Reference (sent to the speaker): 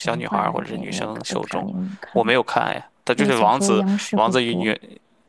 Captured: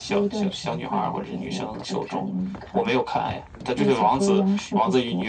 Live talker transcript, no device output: none

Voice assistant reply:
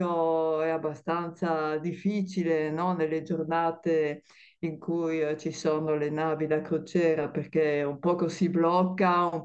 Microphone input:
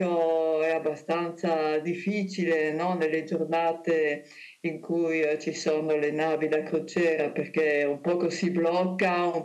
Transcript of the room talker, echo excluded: none

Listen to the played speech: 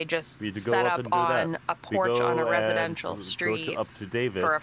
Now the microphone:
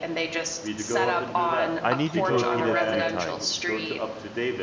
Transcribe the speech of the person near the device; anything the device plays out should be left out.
I need you to repeat it three times.

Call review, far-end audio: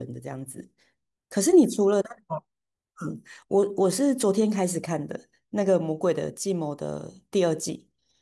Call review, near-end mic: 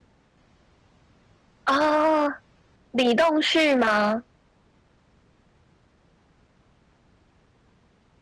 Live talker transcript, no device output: 啊，哦李栋旭吗？

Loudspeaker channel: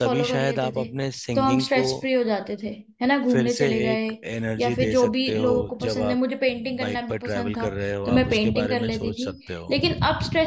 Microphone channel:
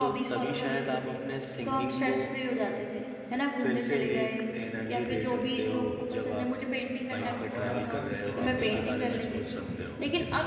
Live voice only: हाँ और आप ना पीछे बैठ के गाना भी गा सकते हो

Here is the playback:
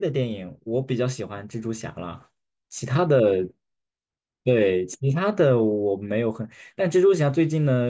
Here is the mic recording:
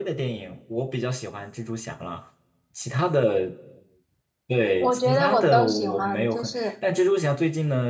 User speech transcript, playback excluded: 我觉得我都喜欢，就是

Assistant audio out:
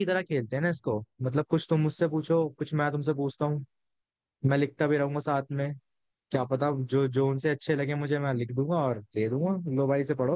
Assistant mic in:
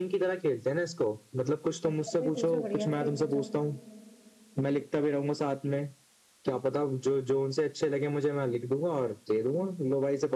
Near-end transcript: अच्छा से ही पूछो बढ़िया से ही पूछो

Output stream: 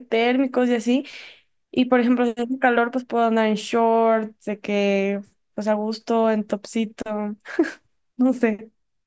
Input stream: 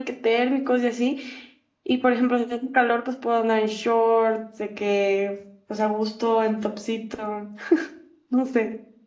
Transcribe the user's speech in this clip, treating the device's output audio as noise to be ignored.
none

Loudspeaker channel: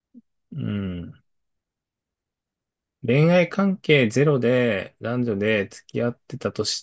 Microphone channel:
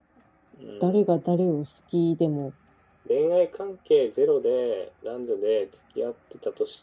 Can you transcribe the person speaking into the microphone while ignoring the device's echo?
誰が誰を好きでも、

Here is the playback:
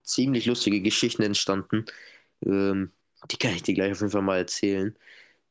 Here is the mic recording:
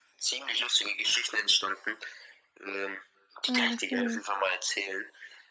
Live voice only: Ah, okay.

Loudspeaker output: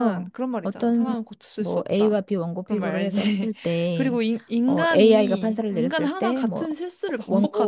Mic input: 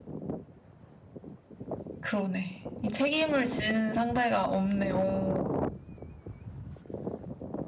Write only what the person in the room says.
그러네. 이 책임을 지는 상대가 없네. 오.

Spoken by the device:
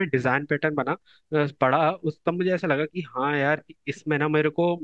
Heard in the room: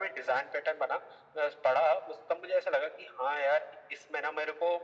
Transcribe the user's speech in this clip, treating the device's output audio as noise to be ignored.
none

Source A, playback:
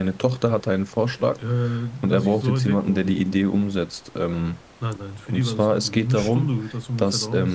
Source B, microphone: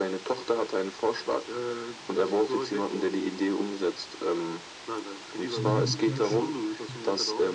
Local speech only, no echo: aber die bezweifeln, dass ich das durchziehe.

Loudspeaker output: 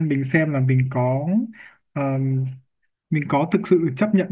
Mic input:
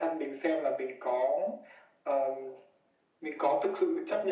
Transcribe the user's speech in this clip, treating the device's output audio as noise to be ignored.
none

